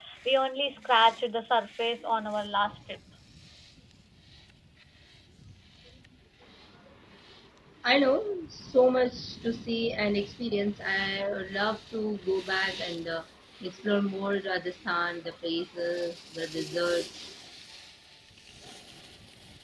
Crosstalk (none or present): none